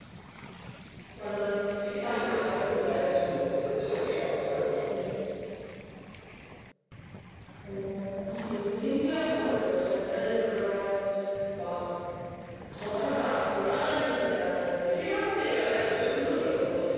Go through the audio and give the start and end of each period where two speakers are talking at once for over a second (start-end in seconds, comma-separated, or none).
2.1-3.3